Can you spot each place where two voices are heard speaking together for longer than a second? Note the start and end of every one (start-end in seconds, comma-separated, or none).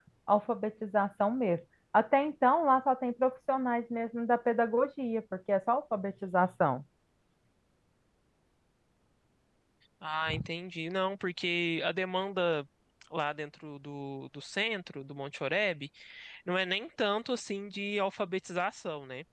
none